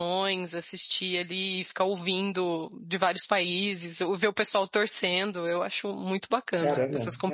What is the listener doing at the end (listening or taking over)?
taking over